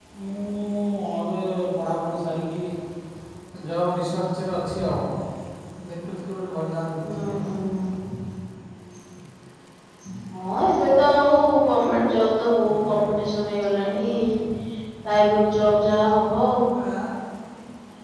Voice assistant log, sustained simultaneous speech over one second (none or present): none